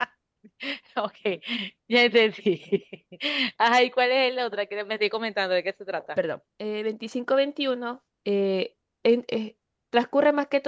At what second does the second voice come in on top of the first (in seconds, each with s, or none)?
none